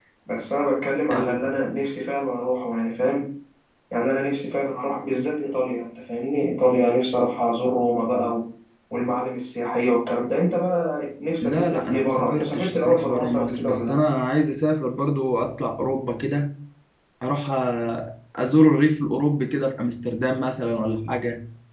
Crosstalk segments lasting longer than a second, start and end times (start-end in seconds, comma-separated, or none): 11.4-14.0